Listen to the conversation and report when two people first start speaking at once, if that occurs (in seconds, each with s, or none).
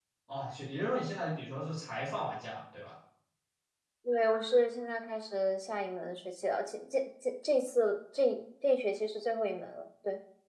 none